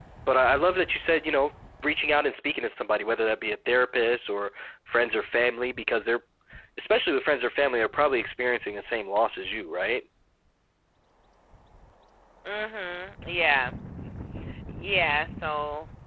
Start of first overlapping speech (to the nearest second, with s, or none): none